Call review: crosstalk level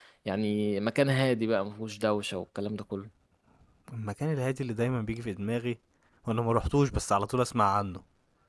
none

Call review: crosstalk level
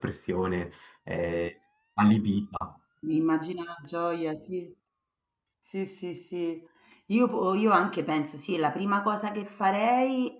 none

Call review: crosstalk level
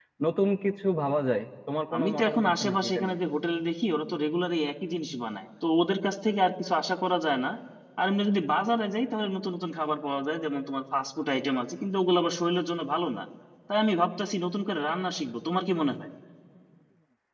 present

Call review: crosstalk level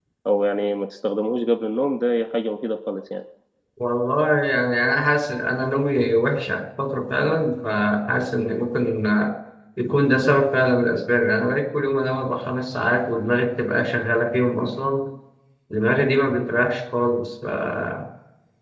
none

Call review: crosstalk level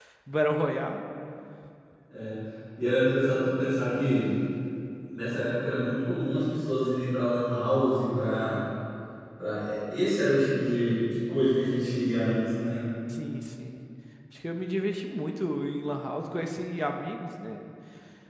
none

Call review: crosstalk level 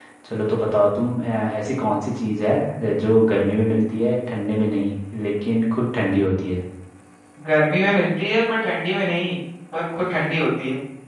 none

